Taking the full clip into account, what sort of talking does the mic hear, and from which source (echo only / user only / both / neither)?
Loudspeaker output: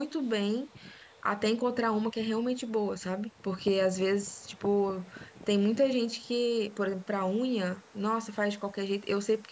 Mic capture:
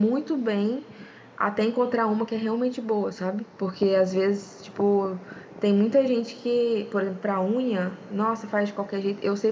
echo only